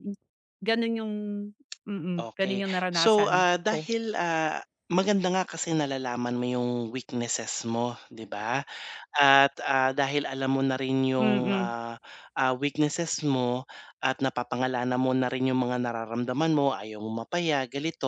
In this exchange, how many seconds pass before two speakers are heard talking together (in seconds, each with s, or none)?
2.2 s